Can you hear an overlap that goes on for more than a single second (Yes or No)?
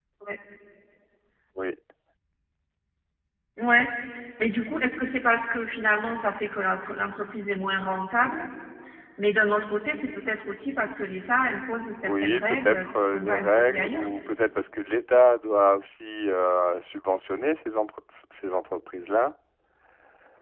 Yes